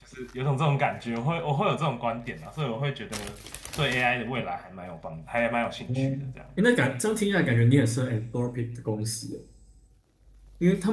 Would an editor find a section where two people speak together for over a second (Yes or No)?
No